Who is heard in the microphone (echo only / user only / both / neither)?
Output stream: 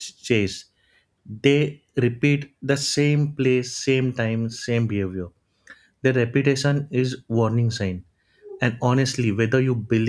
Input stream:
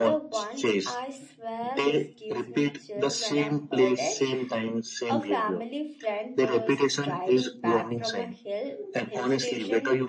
both